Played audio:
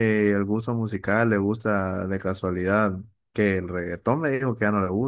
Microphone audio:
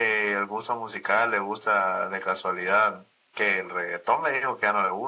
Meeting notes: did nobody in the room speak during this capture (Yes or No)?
Yes